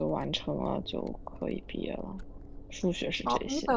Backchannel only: No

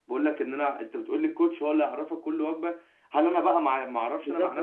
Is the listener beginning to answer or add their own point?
Yes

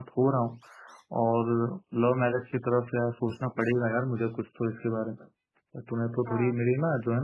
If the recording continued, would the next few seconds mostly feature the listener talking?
No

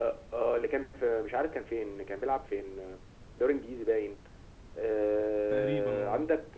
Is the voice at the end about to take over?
No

